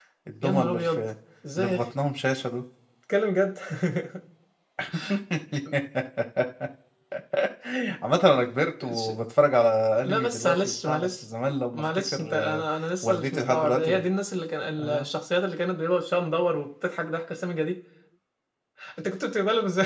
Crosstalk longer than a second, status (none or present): present